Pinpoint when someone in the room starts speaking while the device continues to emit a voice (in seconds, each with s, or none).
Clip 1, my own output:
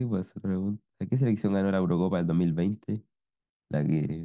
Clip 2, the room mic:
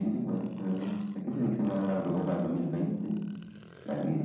none